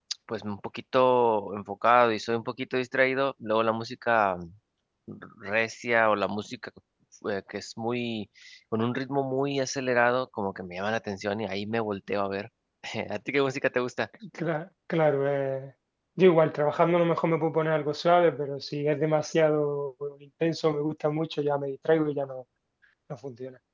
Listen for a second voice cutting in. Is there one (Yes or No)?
No